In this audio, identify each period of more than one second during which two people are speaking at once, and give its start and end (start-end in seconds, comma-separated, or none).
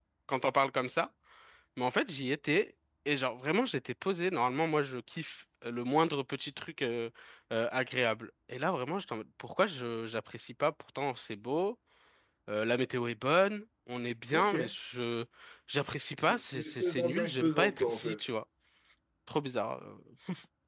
16.2-18.2